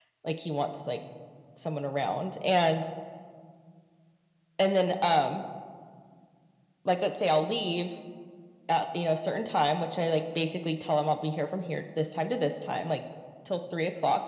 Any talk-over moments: No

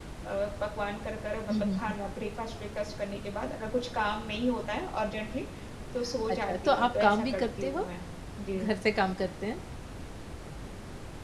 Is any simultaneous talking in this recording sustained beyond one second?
Yes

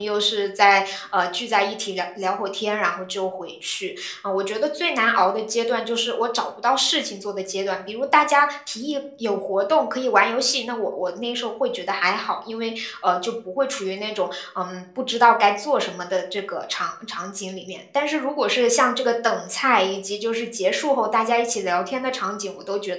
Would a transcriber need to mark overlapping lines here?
No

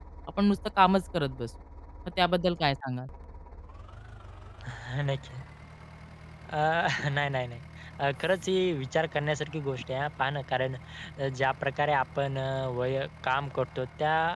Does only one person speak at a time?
Yes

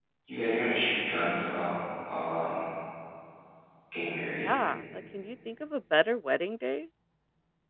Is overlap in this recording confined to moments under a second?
Yes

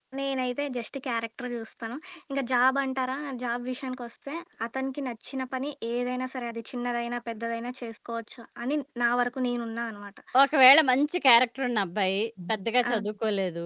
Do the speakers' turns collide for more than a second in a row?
No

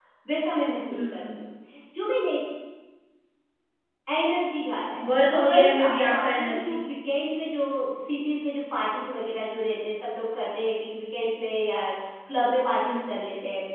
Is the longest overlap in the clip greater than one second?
Yes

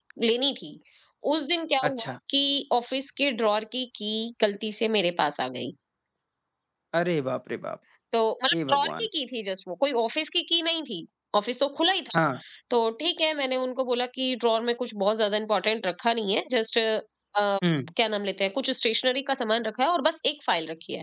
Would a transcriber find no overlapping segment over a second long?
Yes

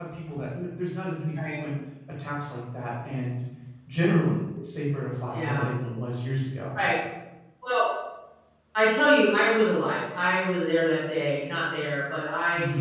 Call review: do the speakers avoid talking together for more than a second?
Yes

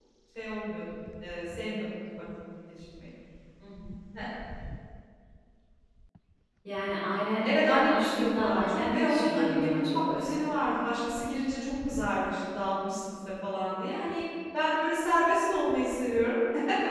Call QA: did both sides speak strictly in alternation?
No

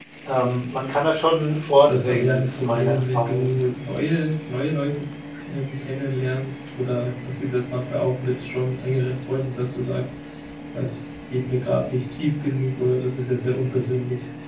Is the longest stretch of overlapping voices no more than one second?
No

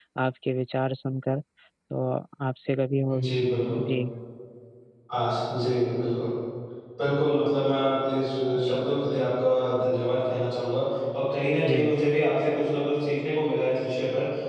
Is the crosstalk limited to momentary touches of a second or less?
Yes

